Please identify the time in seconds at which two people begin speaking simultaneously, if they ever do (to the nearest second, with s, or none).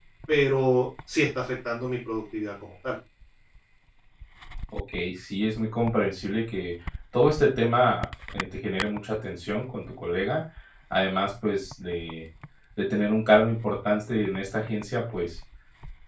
none